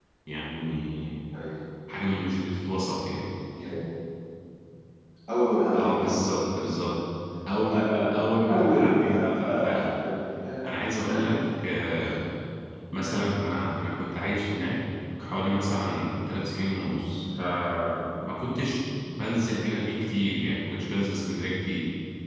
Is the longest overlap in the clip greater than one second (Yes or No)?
Yes